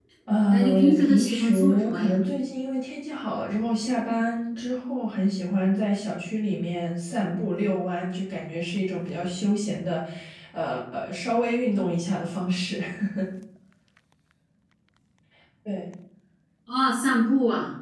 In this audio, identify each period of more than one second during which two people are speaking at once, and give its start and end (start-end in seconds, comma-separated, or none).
0.5-2.2